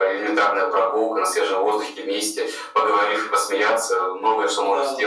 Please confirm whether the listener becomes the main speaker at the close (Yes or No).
Yes